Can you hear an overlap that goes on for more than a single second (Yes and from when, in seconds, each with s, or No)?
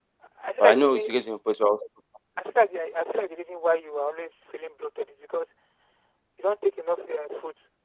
No